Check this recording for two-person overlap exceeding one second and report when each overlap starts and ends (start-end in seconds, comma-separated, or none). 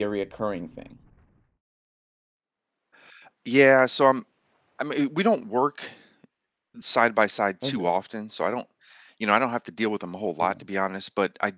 none